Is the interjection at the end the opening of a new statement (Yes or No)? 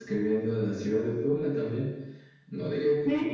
No